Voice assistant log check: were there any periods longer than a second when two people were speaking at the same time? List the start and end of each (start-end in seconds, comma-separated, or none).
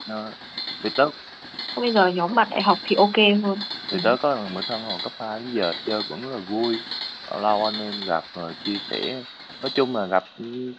none